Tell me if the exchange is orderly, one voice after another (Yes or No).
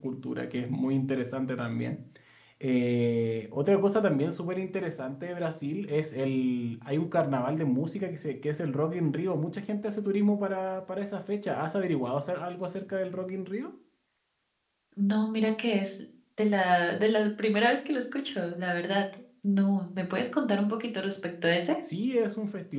Yes